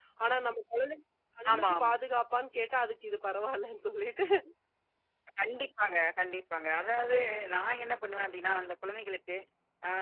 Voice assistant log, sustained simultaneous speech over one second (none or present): none